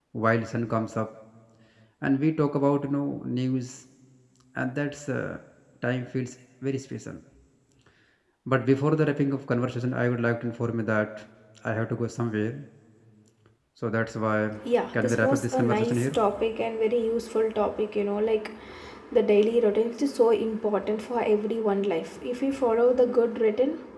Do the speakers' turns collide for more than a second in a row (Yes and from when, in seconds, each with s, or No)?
Yes, from 14.9 s